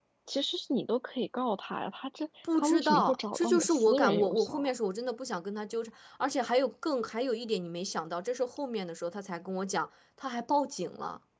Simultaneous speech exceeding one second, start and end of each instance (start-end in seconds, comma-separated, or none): 2.5-4.7